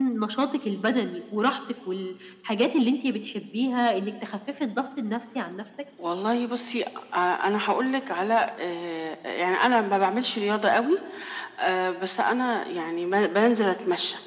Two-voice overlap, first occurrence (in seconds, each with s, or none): none